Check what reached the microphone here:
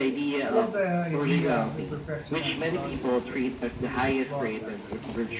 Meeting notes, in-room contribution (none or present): present